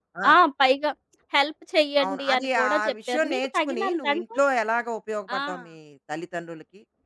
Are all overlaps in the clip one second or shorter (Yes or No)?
No